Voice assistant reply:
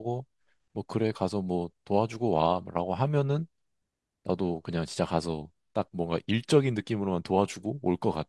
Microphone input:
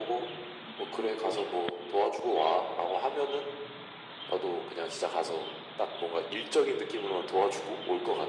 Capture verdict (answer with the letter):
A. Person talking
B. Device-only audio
B